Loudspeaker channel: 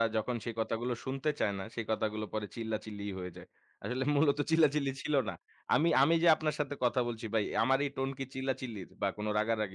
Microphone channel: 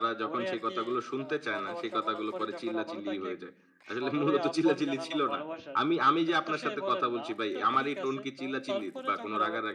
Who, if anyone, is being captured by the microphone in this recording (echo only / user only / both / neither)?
both